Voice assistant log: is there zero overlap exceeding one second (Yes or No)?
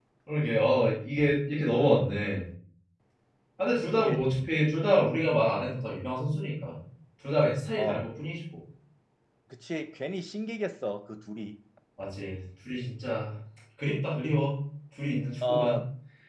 Yes